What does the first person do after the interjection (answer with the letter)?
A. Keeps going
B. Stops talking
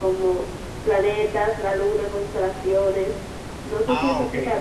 B